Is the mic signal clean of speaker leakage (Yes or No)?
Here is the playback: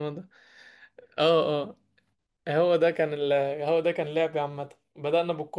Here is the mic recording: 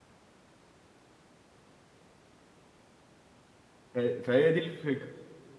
Yes